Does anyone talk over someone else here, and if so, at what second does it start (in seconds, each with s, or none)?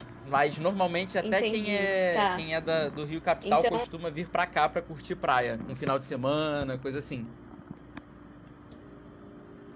1.2 s